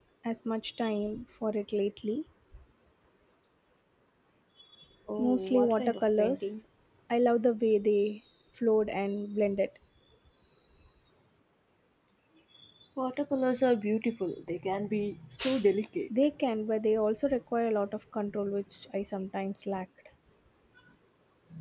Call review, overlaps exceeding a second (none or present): present